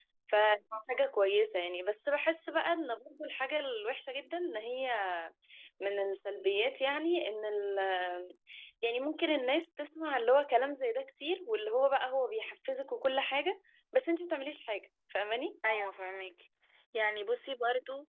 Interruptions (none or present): none